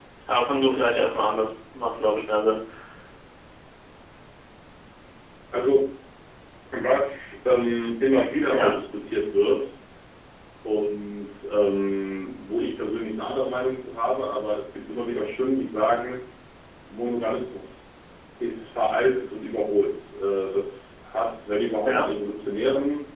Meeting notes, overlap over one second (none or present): none